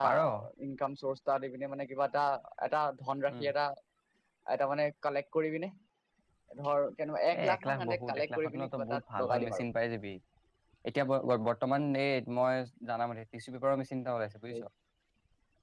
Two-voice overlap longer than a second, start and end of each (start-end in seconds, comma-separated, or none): 7.4-9.6